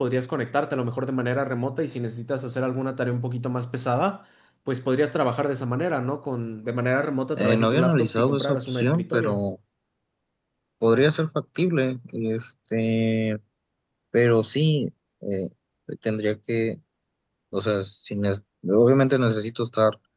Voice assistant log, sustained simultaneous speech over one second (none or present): present